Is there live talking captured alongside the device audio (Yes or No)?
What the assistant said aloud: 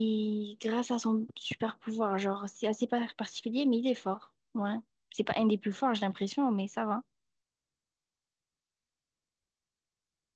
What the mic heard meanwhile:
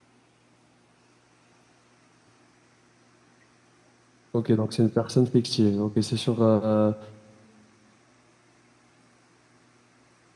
Yes